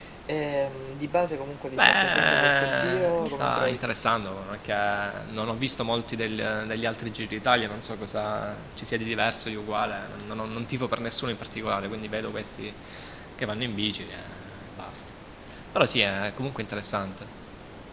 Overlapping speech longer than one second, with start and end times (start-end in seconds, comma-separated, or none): 1.8-3.8